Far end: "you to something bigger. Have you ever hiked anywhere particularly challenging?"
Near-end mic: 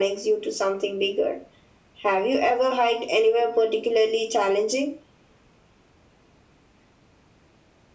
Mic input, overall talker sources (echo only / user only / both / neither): echo only